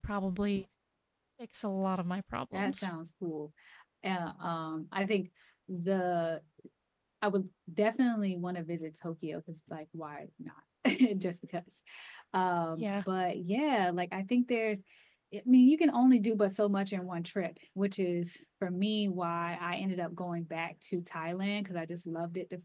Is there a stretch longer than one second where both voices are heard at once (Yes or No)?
No